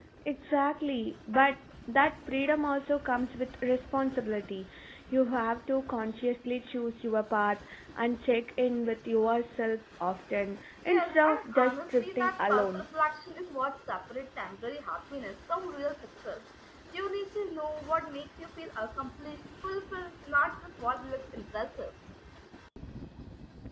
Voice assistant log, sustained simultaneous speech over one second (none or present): present